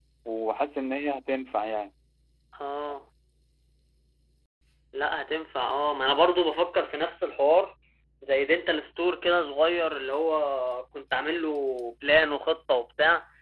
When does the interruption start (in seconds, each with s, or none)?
none